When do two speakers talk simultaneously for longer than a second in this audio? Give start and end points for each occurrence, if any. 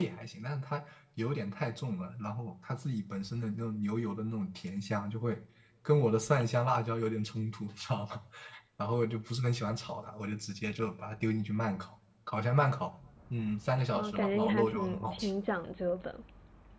13.9-15.3

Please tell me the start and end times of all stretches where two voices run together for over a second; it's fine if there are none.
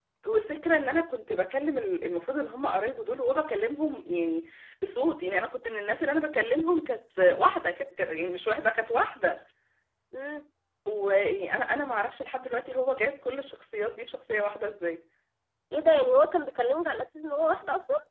none

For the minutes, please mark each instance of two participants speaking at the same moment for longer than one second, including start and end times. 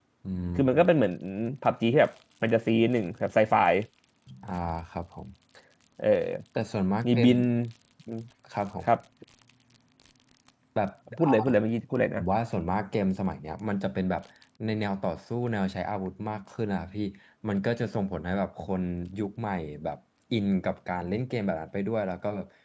none

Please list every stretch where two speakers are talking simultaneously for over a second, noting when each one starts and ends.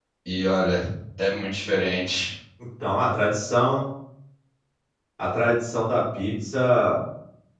none

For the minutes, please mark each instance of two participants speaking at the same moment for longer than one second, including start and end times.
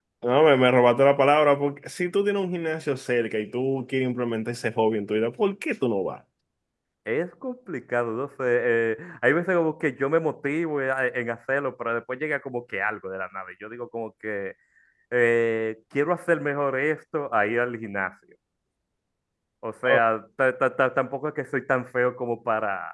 none

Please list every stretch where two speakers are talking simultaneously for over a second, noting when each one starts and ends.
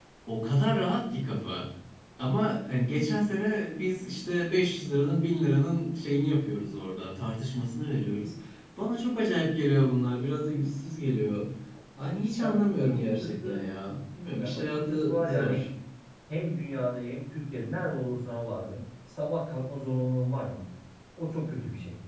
12.3-13.6, 14.4-15.6

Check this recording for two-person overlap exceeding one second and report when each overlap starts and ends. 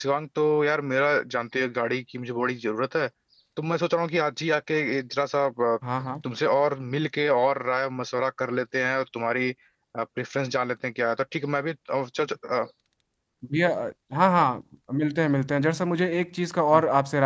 none

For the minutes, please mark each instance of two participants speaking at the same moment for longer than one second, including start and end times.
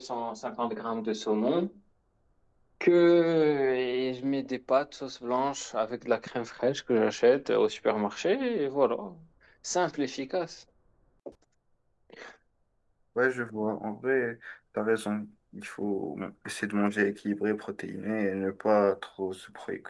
none

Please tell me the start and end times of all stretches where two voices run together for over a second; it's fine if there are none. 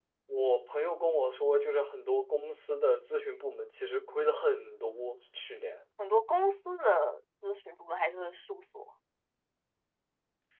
none

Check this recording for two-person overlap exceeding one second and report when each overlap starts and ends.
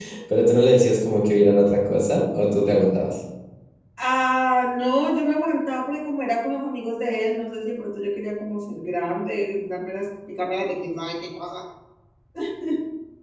none

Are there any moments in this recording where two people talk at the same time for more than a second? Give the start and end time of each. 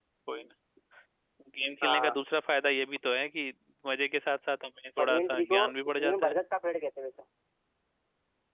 5.0-6.3

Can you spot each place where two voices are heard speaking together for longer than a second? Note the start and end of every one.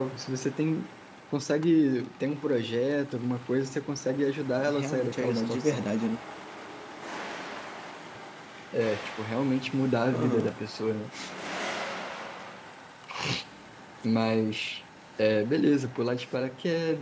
4.7-5.9

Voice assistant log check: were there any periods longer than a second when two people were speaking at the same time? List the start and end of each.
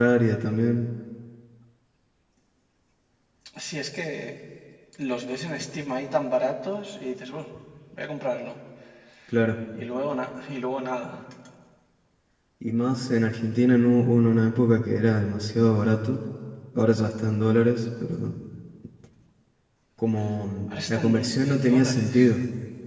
20.9-22.1

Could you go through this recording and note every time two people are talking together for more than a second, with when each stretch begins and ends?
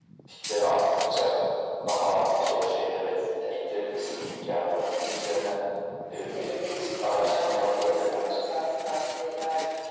7.0-8.4

